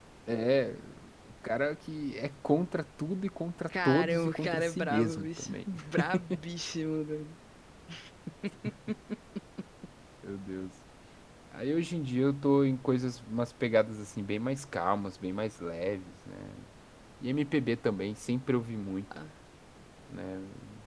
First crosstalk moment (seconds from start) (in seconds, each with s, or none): 3.7 s